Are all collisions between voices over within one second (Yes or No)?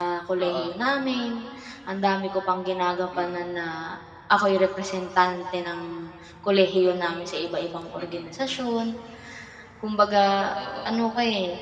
Yes